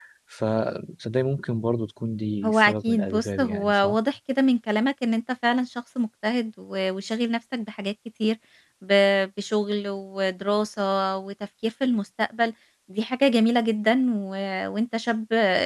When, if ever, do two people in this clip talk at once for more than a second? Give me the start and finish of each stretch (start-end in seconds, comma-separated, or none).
2.4-4.0